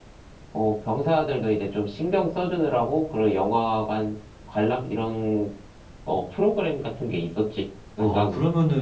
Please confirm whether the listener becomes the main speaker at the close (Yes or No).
Yes